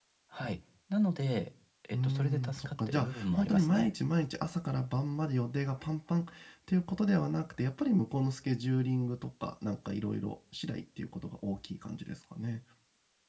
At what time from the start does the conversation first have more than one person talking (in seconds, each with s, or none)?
1.9 s